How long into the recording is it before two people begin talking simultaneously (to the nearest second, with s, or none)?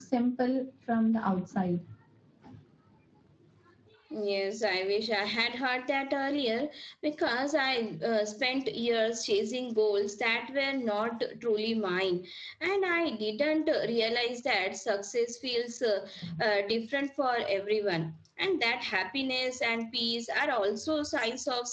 none